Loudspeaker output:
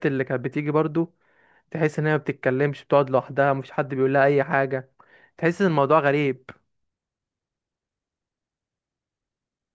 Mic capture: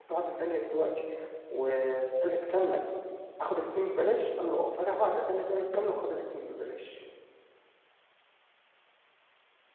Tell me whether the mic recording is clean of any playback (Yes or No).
Yes